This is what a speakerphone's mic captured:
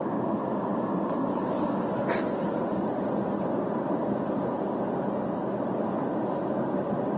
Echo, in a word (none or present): none